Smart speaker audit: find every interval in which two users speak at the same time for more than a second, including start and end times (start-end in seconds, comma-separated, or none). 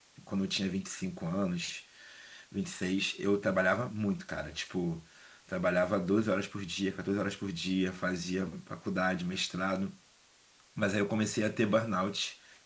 none